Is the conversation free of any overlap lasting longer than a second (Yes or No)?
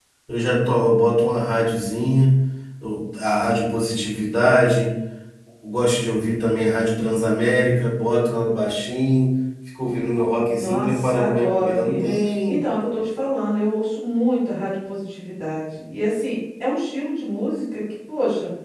No